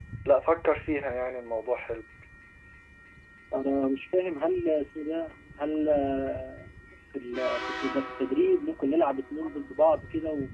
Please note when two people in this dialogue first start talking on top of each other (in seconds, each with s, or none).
none